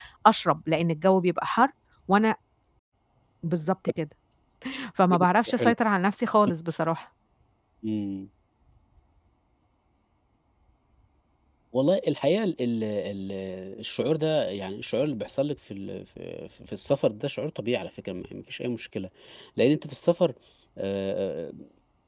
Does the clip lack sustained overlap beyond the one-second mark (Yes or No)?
Yes